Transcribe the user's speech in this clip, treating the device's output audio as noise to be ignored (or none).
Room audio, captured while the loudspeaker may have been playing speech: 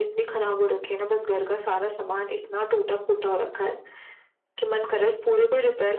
none